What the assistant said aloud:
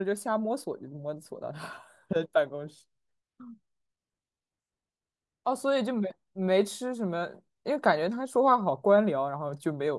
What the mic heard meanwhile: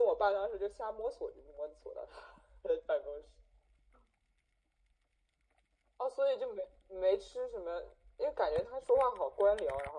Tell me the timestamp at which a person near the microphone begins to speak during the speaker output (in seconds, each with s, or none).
none